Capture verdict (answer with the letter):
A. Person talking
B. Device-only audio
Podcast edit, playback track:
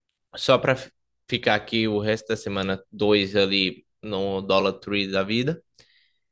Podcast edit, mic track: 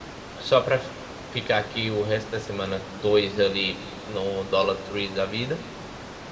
B